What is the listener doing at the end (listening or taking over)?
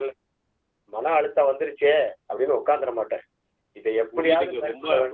taking over